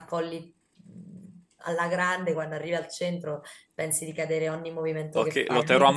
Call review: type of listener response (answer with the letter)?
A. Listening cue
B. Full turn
B